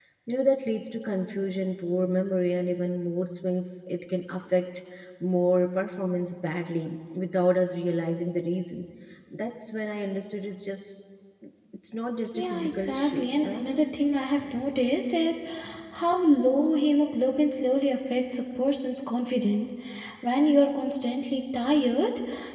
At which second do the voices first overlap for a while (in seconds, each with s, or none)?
12.3 s